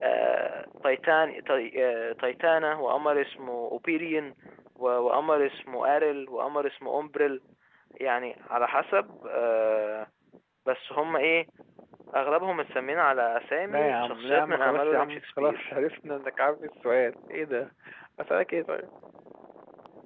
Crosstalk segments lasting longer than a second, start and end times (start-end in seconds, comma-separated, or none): 13.7-15.7